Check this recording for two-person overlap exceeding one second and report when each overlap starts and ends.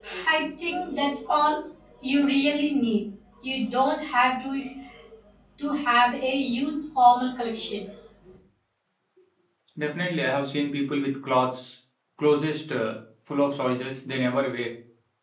none

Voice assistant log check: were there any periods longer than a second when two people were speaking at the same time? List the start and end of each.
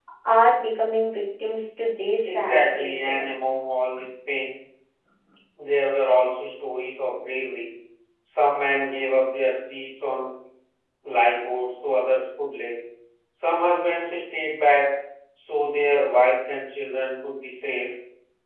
2.2-3.5

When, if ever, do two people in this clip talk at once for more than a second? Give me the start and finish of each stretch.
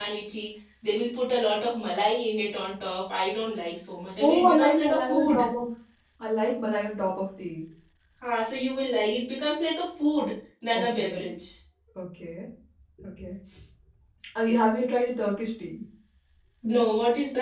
4.2-5.4

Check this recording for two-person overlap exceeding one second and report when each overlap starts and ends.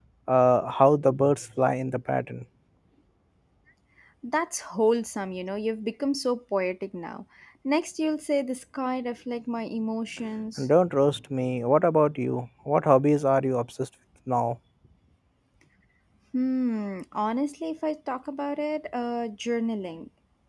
none

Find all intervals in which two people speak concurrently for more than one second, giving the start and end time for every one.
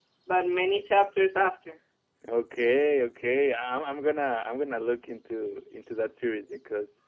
none

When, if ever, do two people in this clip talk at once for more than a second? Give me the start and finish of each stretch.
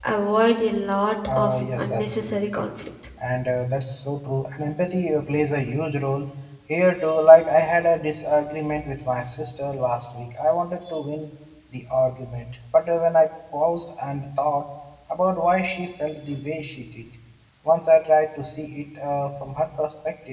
1.4-2.6

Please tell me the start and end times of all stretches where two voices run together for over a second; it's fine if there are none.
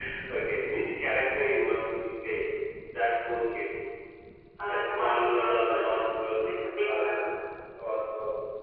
4.7-6.1

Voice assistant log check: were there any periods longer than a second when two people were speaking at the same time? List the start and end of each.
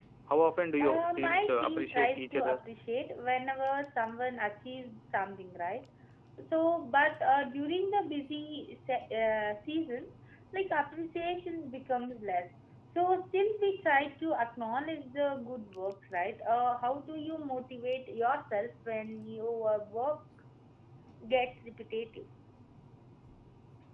0.8-2.6

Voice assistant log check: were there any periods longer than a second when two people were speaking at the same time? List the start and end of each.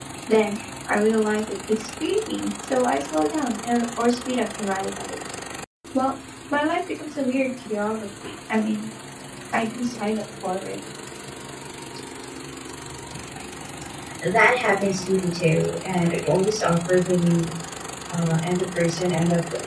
none

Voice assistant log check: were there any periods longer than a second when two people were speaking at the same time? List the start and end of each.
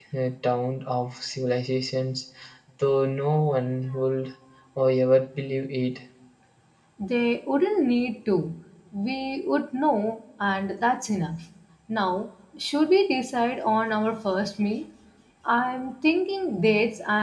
none

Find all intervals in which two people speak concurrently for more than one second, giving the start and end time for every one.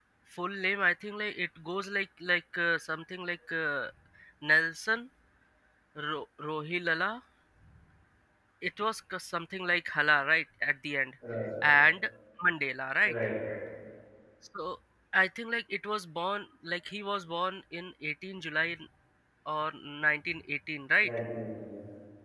none

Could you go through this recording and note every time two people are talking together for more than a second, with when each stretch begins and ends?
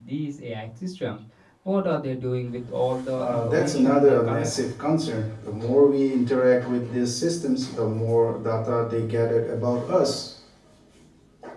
3.1-4.5

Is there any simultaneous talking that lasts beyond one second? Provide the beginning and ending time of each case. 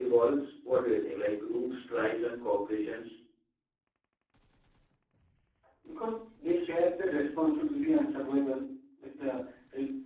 none

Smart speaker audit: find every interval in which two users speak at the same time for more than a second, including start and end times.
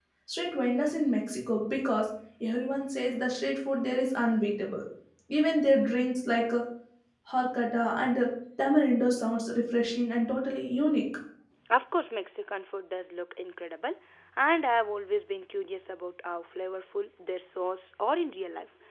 none

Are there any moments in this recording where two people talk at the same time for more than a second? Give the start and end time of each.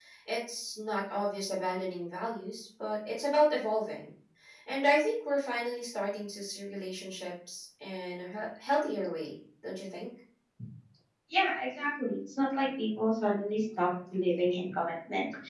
none

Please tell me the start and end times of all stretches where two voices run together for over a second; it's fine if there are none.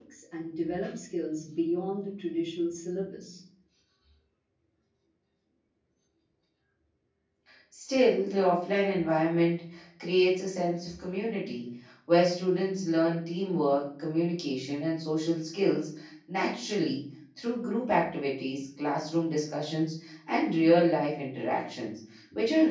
none

